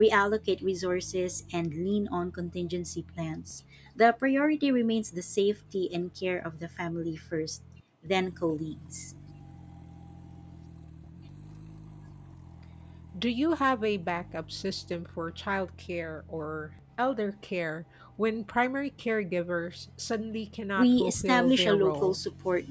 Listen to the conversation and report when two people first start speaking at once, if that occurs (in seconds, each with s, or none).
20.8 s